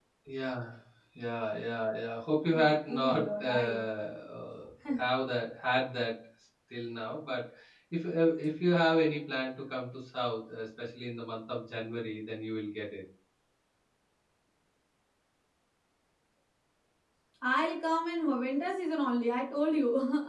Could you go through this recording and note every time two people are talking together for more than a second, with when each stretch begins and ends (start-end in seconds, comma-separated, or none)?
2.5-3.8